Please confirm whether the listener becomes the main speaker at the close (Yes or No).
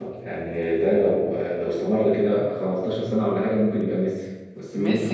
Yes